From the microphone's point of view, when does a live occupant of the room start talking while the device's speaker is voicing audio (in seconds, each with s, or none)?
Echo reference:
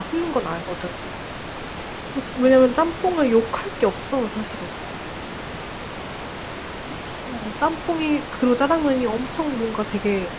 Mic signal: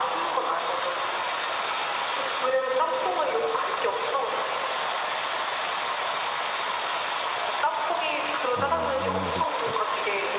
8.5 s